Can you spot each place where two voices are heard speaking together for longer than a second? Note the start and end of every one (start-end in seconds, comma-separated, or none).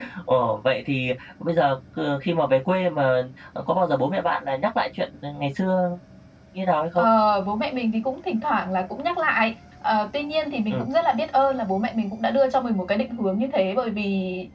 none